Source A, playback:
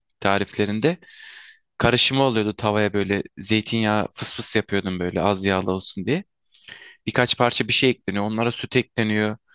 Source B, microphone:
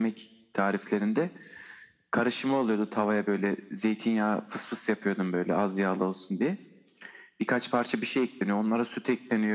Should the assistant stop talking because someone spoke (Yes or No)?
No